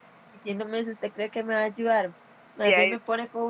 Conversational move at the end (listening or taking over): listening